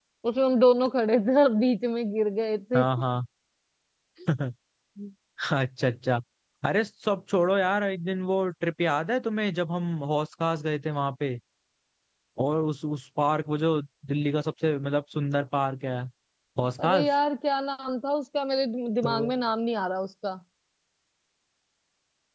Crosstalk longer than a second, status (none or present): none